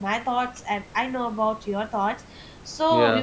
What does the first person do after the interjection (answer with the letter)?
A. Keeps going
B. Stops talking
A